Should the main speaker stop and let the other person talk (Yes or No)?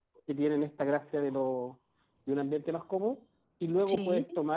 No